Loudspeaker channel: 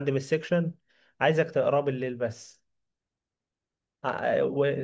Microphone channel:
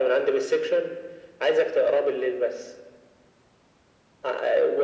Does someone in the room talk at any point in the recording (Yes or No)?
No